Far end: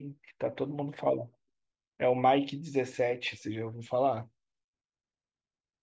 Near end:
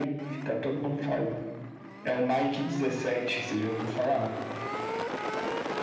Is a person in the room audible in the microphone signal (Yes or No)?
No